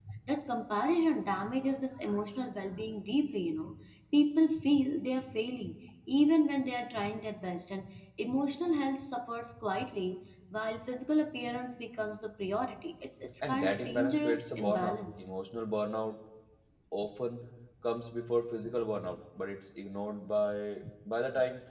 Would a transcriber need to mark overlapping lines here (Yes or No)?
Yes